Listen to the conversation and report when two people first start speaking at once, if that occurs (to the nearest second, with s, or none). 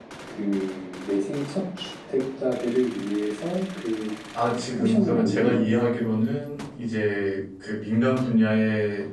5 s